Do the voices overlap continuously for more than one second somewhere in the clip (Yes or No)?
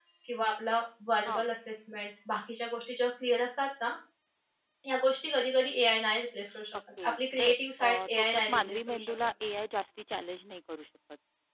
Yes